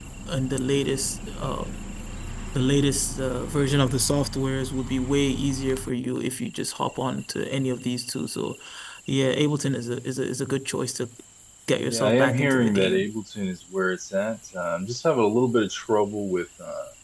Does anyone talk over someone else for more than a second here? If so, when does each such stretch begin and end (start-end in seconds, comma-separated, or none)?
11.9-13.1